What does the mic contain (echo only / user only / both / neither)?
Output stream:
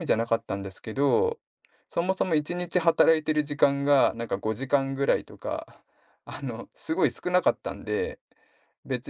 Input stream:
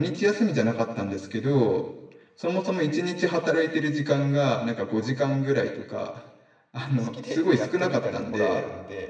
both